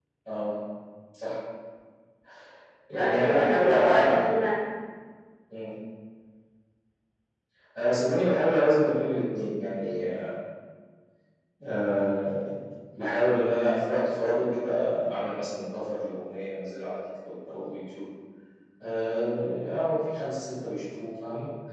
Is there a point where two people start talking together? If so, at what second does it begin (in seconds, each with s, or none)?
2.9 s